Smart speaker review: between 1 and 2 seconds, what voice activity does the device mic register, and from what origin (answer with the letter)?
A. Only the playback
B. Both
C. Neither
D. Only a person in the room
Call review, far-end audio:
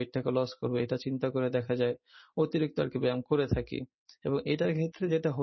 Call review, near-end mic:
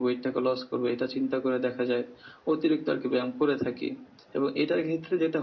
A